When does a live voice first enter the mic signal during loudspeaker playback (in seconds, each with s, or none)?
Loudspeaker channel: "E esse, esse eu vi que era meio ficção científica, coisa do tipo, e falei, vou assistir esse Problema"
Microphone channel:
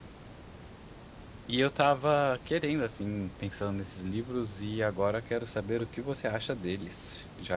1.5 s